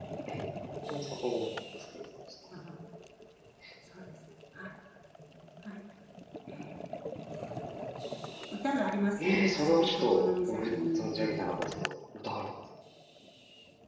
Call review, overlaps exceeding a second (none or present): present